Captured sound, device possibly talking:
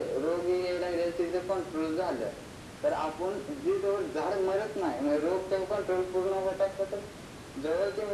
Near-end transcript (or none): none